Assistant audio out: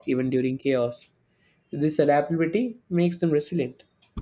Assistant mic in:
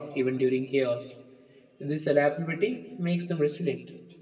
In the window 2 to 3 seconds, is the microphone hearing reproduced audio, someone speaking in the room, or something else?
echo only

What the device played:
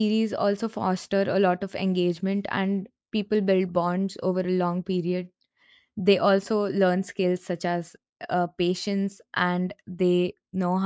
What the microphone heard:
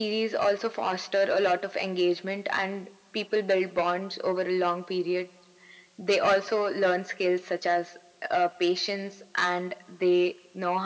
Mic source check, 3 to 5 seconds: echo only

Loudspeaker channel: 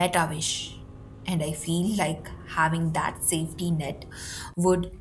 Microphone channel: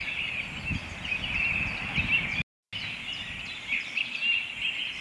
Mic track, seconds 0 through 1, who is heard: neither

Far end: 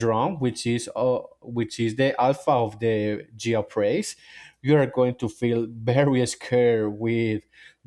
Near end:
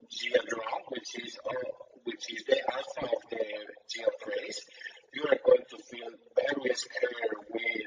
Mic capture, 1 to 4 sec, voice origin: echo only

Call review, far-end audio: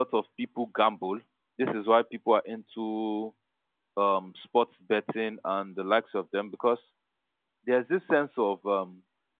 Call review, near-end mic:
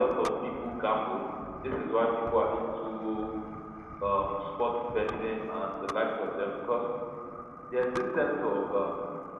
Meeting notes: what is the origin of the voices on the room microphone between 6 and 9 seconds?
echo only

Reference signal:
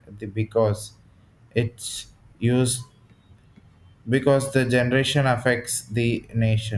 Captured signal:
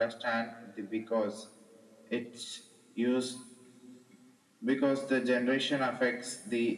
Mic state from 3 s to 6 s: echo only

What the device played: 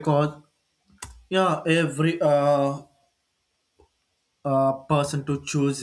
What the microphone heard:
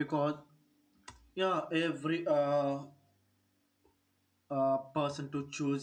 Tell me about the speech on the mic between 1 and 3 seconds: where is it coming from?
echo only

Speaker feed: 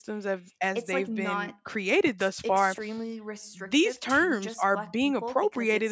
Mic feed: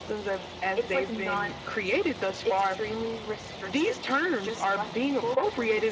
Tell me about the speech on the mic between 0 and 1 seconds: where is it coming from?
echo only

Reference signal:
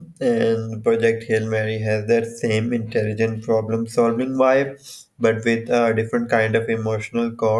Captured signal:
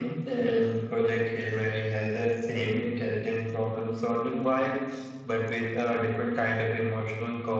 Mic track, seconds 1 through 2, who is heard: echo only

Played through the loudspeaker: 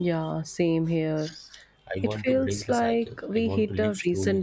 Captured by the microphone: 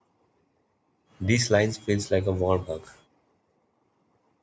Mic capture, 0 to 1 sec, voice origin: neither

